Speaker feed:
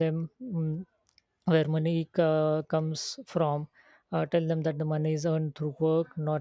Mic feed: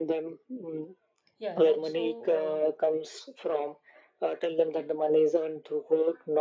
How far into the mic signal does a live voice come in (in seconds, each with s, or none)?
1.4 s